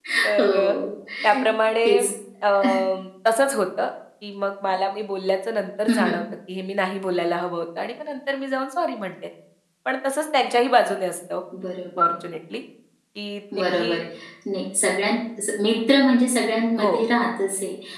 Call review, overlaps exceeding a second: none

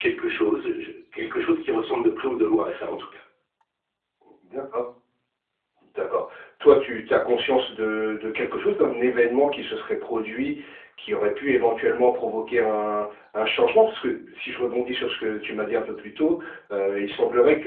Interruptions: none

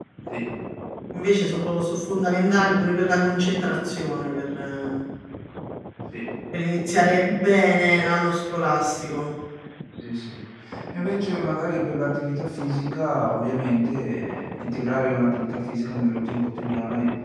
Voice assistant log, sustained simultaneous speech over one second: none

